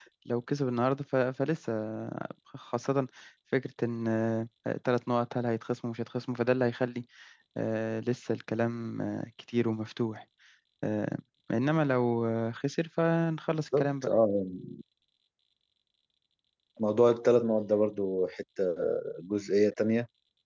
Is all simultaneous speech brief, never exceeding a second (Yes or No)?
Yes